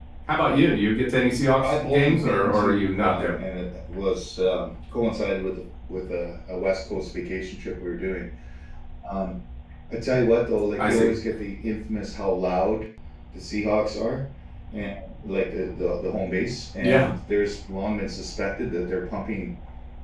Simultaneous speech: Yes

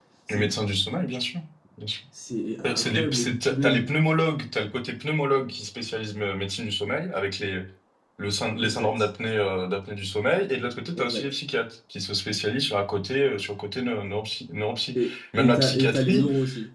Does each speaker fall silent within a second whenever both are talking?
No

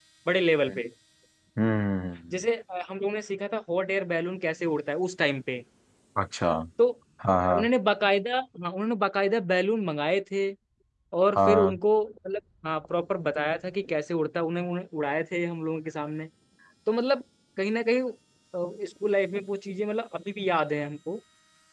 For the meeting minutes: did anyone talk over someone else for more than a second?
No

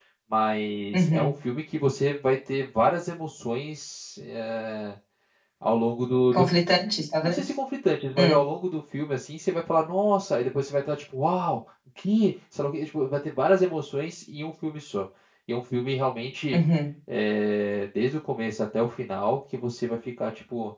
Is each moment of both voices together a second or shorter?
Yes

